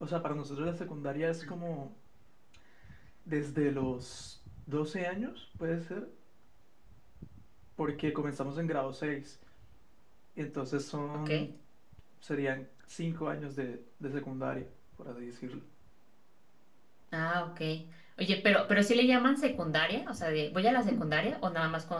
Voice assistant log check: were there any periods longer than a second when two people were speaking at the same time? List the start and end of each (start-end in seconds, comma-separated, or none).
none